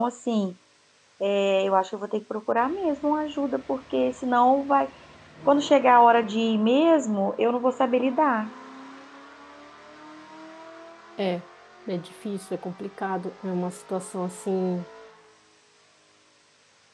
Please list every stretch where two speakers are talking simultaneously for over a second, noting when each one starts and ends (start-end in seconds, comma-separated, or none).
none